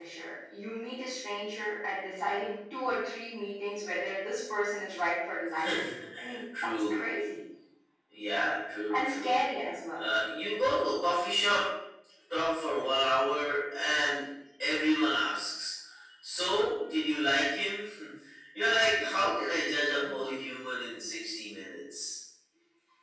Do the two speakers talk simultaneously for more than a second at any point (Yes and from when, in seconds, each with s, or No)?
No